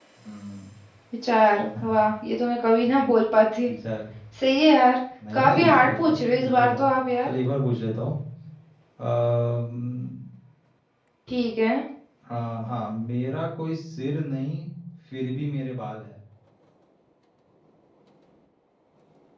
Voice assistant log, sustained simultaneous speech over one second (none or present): present